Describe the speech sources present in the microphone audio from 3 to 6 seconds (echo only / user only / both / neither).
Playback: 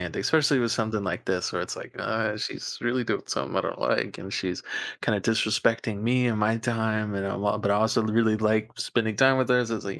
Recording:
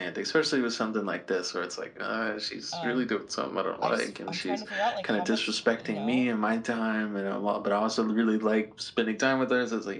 both